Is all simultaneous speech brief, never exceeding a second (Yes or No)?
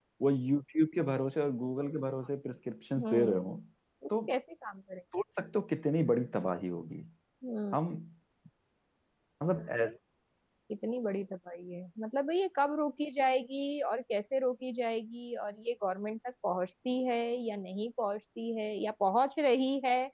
Yes